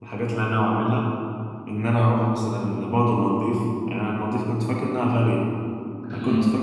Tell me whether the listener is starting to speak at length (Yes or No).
No